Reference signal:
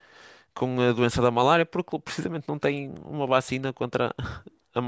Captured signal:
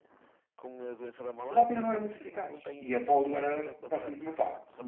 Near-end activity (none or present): present